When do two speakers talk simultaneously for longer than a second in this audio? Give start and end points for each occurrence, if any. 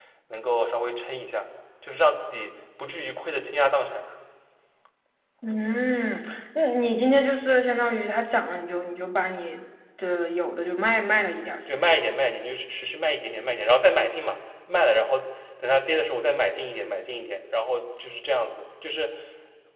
none

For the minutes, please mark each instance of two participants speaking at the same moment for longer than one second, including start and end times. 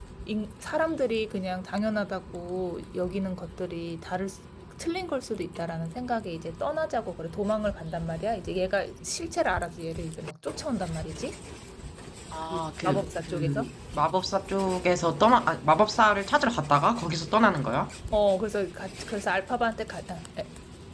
12.4-13.7

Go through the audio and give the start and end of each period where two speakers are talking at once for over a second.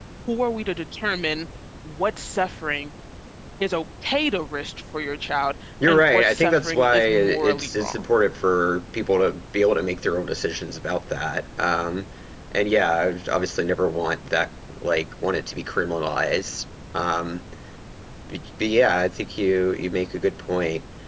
5.9-8.0

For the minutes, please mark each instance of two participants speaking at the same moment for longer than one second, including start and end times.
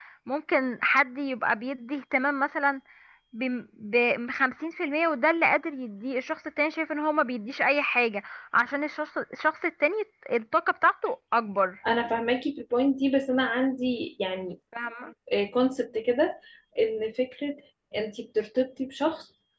none

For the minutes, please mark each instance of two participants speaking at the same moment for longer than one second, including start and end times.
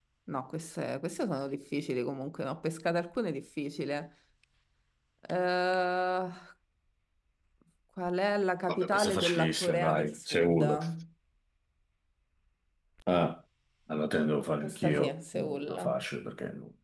8.7-10.8, 14.6-16.0

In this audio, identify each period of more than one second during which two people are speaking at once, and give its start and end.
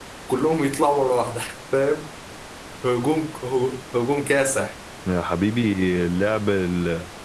none

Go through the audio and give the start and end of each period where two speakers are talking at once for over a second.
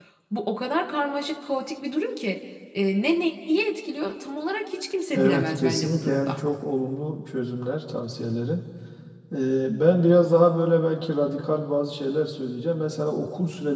5.2-6.4

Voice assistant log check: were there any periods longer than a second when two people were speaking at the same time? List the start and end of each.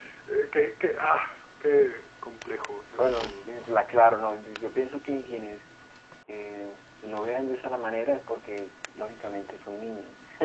none

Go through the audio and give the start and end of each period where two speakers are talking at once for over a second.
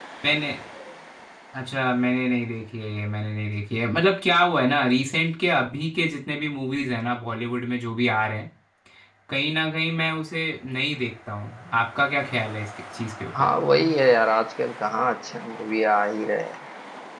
none

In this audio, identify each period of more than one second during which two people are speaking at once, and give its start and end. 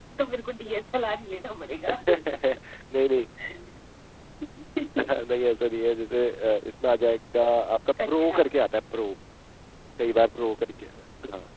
none

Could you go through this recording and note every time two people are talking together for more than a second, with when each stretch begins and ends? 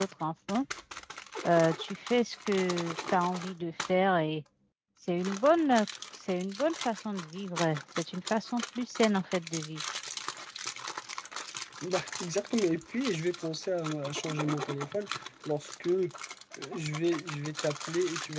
none

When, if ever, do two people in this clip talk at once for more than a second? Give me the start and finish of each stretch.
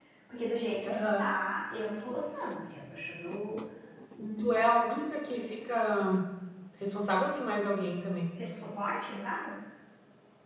none

